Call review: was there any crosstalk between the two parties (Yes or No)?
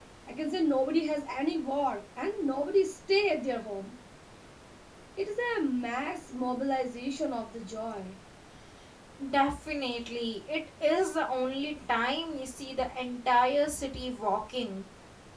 No